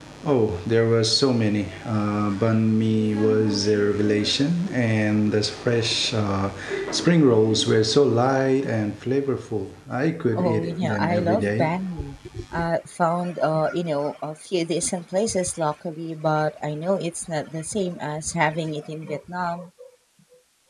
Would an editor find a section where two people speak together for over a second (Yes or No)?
Yes